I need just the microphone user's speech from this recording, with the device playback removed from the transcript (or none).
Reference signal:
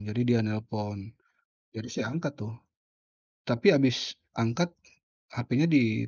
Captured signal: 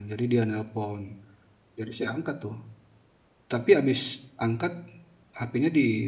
none